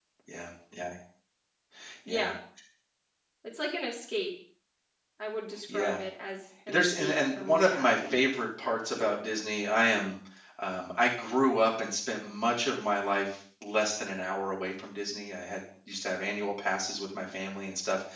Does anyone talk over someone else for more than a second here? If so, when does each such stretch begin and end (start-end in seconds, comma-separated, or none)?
6.7-8.2